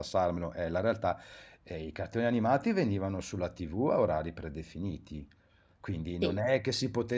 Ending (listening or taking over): listening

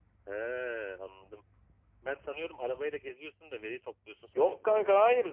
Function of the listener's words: taking over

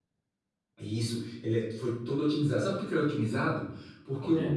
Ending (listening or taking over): listening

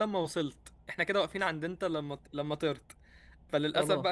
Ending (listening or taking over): listening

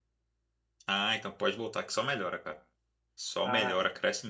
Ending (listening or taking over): listening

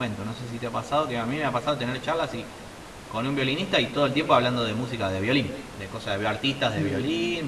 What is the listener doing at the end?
listening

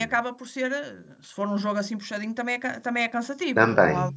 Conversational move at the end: taking over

